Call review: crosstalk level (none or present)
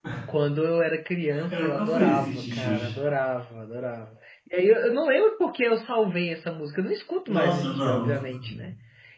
present